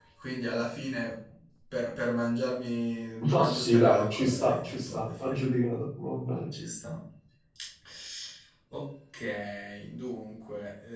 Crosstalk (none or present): present